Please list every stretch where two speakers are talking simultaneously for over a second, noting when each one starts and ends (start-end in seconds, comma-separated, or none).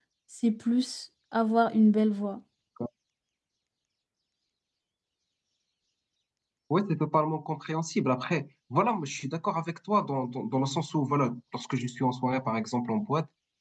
none